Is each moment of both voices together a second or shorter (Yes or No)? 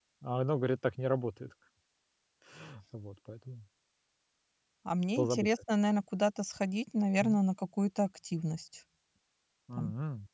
Yes